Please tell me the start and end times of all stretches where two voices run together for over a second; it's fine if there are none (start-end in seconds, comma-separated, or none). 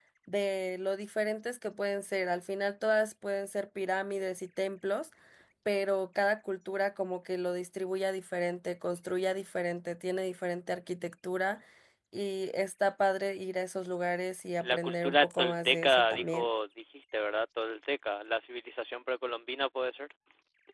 14.6-16.5